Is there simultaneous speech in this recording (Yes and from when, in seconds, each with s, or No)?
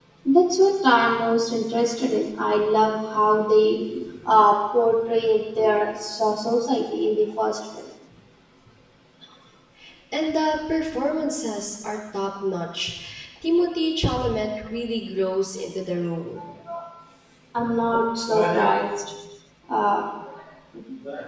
No